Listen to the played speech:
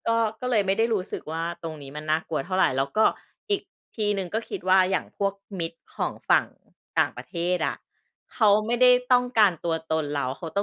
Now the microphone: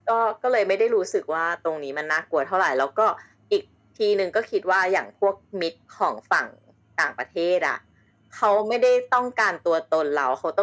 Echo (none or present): present